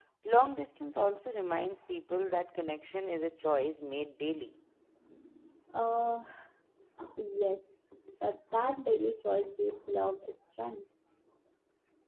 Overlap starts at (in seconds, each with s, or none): none